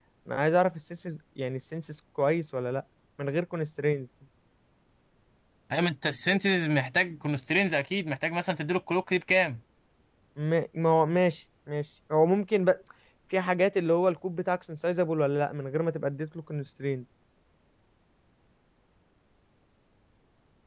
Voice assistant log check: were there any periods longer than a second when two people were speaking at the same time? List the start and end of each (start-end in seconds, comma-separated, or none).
none